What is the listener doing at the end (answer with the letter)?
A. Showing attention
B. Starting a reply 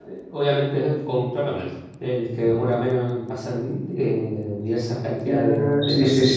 B